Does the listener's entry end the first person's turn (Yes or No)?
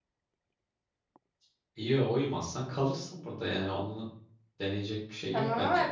Yes